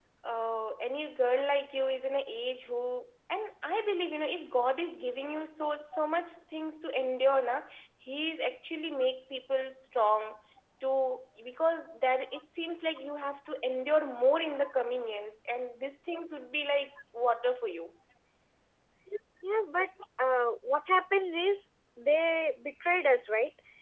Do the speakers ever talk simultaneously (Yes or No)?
No